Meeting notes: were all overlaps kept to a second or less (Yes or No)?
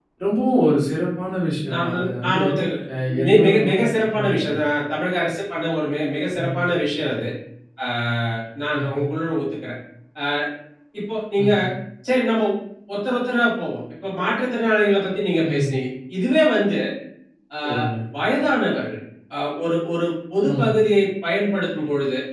No